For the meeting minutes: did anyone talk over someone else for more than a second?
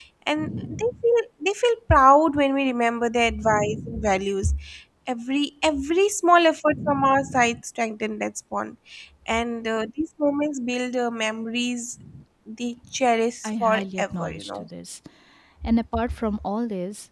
Yes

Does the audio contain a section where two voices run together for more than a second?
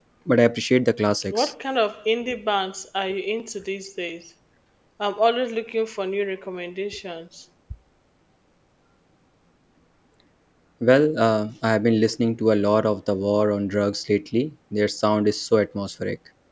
No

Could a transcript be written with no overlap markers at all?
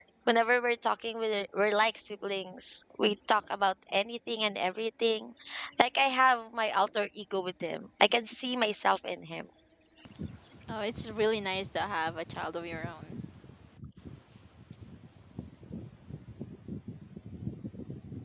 Yes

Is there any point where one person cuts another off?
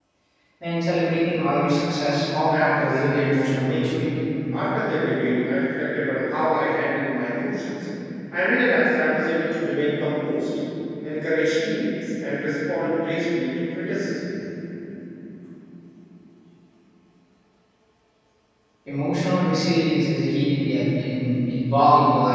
Yes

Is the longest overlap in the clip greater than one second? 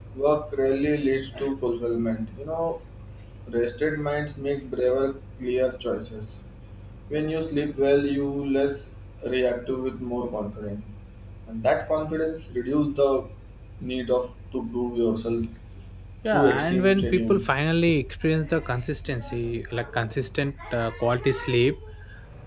Yes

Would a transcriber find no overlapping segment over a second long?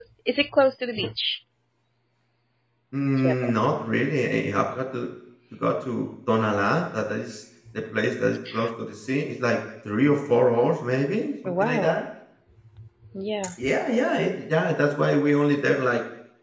Yes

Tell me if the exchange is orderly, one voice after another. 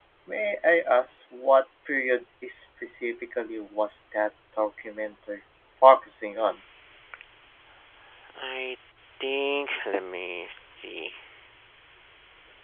Yes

